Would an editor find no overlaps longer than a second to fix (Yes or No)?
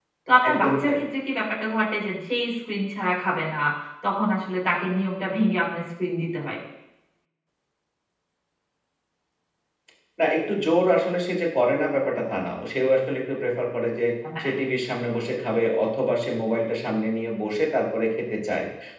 Yes